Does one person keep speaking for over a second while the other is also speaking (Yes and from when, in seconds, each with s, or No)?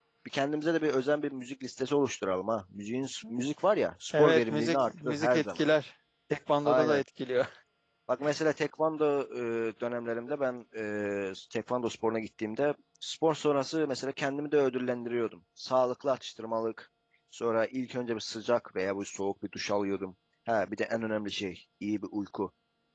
Yes, from 4.2 s